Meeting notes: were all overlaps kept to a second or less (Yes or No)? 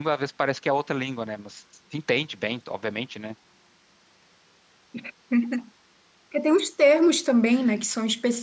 Yes